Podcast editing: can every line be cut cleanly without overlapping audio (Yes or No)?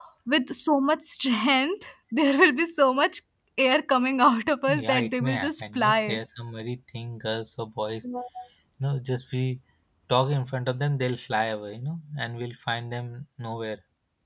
No